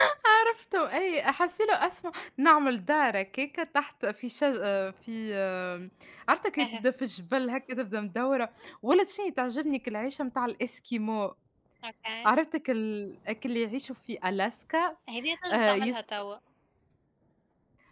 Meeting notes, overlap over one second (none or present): none